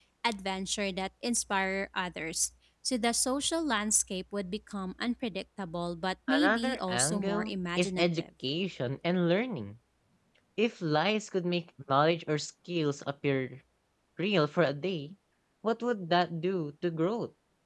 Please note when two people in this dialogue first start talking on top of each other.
6.3 s

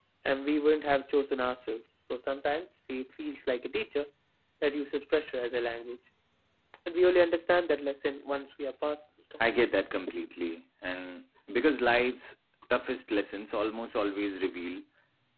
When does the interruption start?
none

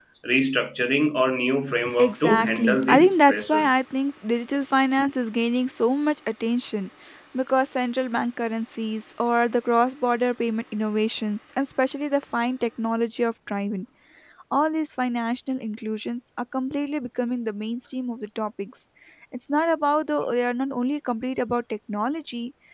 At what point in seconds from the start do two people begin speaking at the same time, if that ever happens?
2.0 s

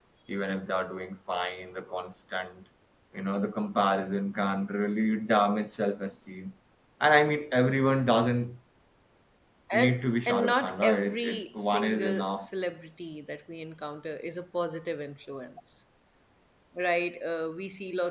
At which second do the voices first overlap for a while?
9.7 s

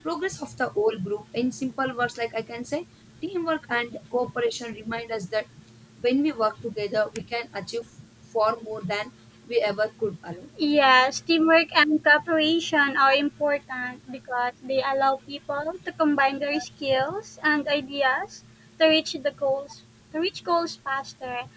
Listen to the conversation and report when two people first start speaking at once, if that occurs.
none

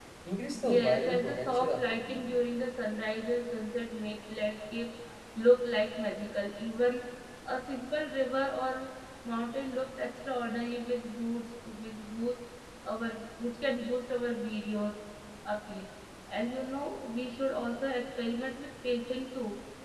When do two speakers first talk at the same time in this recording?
0.6 s

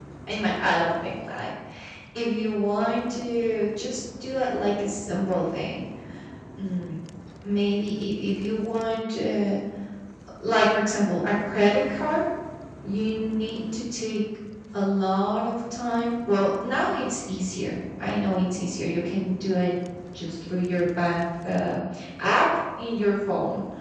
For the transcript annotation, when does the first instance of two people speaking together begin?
none

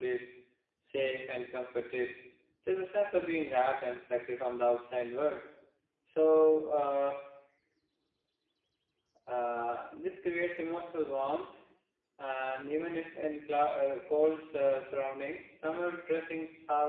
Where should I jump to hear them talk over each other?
none

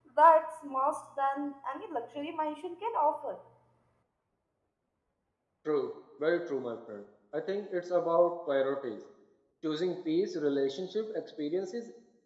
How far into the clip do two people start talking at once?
none

